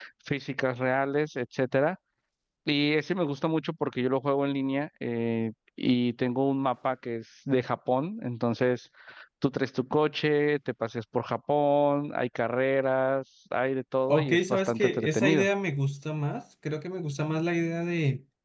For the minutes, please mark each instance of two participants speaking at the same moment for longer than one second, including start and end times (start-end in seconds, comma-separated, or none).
14.1-15.5